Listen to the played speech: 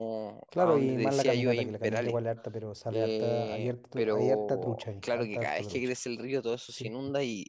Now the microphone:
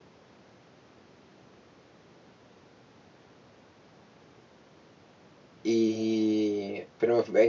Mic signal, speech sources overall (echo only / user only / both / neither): user only